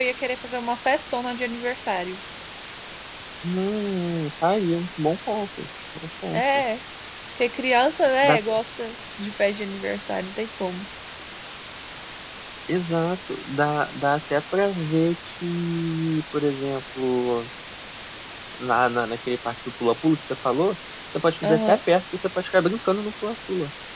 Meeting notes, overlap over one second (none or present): none